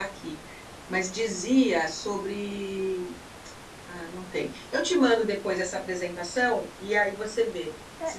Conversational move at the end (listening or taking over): taking over